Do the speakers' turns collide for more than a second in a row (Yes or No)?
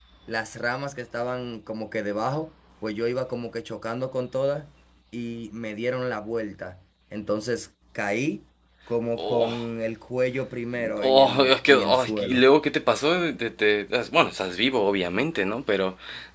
Yes